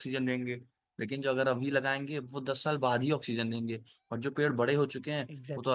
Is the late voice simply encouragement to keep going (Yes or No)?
Yes